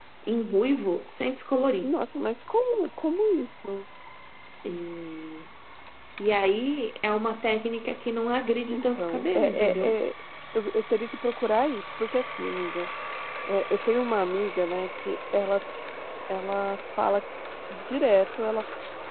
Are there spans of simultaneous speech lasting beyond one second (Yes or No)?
Yes